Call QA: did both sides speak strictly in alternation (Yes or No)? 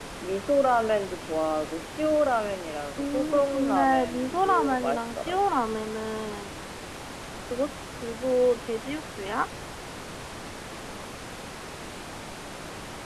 No